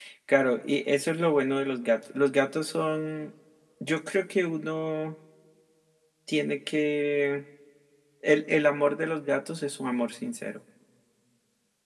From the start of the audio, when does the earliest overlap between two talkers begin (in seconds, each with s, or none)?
none